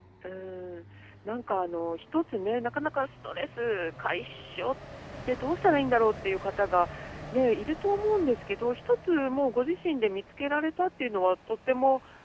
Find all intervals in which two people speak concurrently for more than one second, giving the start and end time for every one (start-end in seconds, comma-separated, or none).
none